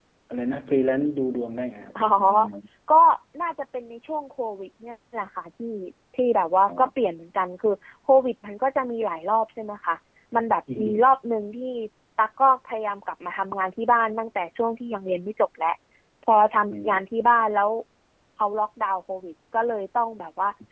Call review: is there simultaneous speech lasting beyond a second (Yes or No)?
No